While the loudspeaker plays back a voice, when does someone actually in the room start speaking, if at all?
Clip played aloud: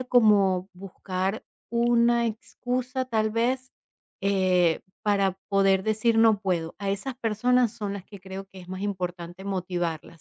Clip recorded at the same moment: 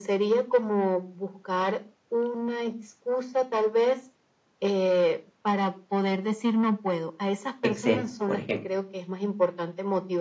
7.6 s

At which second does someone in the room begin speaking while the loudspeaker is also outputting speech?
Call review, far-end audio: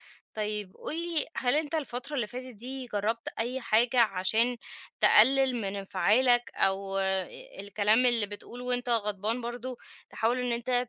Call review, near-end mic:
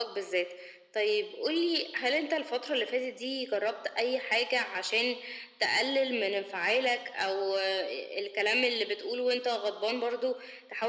none

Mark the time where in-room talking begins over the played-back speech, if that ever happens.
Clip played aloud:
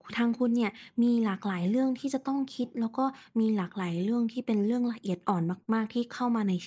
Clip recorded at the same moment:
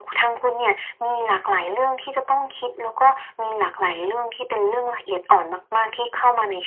none

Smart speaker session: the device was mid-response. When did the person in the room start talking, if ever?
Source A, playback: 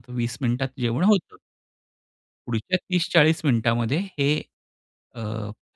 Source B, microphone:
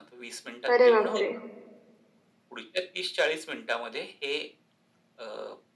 0.7 s

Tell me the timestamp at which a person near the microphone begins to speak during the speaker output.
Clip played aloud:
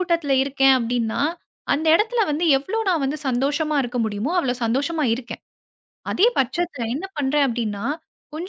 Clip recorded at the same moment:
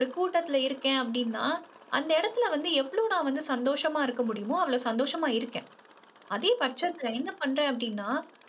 none

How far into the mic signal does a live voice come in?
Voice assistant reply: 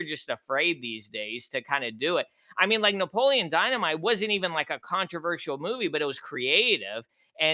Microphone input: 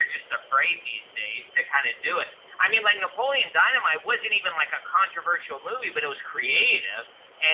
none

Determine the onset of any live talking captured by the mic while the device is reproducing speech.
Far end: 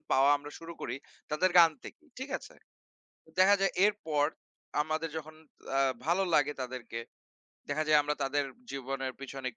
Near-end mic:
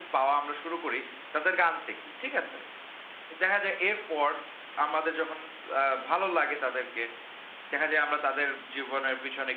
none

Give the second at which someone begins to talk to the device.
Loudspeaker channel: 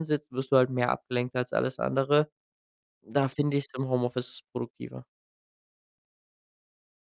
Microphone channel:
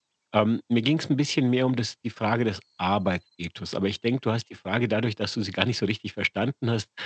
0.3 s

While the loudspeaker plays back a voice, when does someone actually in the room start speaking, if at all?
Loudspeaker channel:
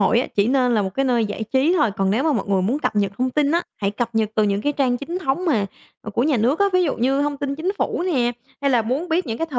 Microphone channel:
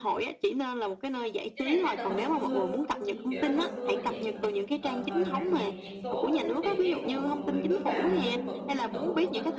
1.6 s

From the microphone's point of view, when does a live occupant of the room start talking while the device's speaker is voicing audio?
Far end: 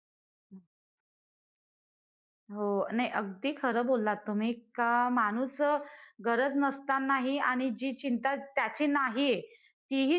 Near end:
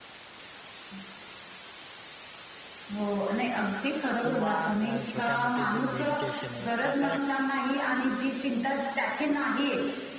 4.2 s

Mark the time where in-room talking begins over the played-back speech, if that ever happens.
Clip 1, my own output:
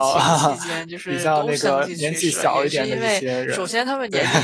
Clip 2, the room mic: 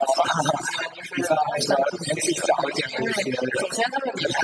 none

